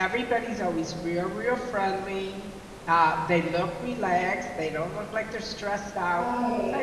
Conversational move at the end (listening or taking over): listening